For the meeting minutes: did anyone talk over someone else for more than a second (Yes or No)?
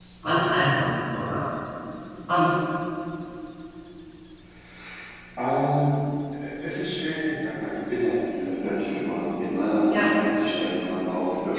No